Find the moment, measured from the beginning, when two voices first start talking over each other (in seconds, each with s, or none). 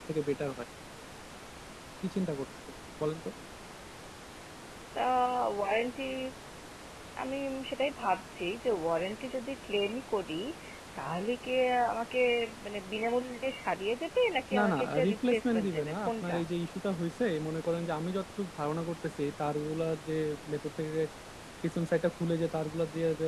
14.5 s